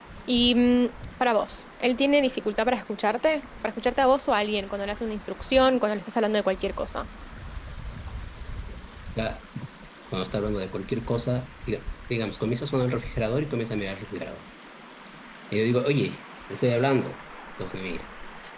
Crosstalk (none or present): none